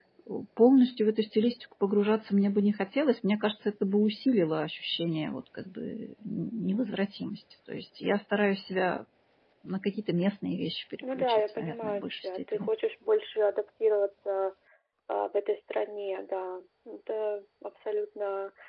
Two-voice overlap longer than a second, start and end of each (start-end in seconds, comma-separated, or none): 11.2-12.7